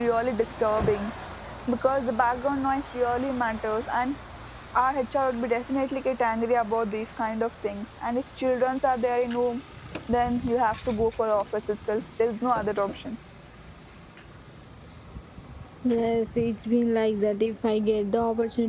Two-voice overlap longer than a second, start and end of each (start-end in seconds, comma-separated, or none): none